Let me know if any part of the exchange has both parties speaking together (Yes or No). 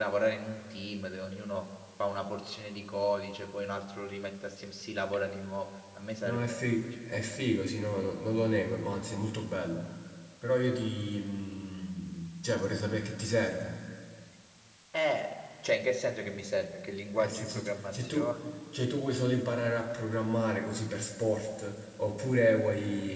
Yes